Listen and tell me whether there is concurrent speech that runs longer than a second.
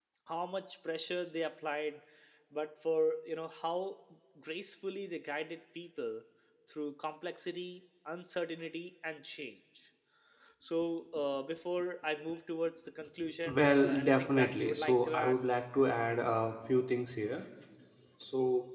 Yes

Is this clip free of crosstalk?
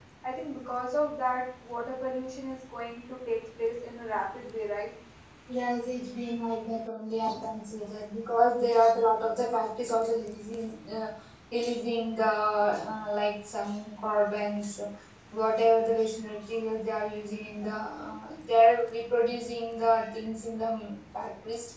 Yes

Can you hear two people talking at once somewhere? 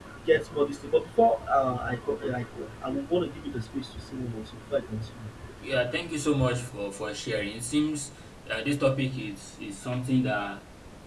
No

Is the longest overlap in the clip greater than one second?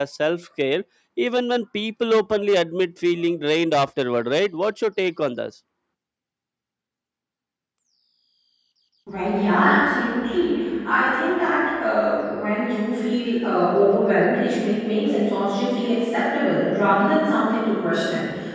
No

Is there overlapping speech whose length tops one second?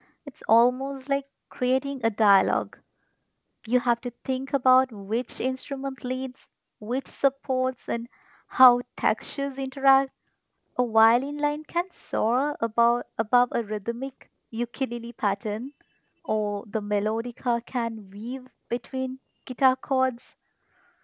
No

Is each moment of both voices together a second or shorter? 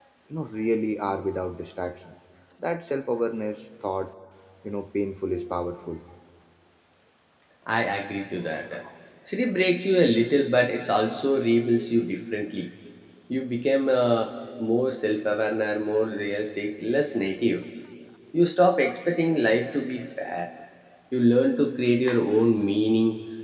Yes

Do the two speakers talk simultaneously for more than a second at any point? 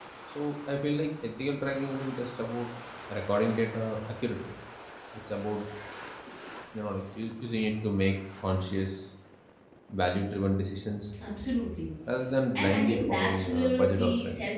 Yes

